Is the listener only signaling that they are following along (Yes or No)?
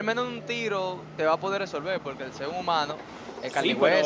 No